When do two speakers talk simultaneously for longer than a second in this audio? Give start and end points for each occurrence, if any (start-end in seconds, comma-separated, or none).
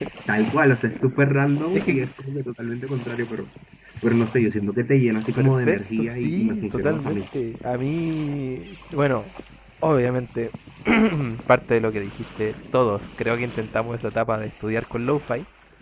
5.3-7.2